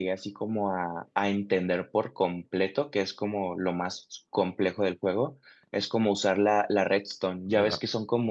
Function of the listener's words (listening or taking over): listening